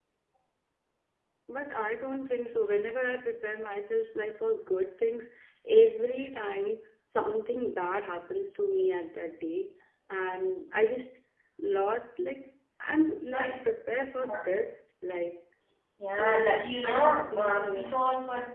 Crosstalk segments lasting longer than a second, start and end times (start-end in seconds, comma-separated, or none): 16.2-17.9